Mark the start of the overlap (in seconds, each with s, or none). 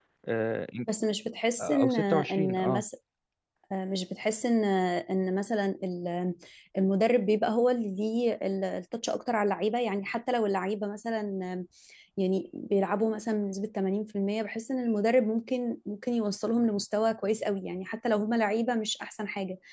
1.6 s